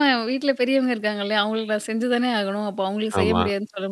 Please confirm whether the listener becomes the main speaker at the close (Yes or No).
No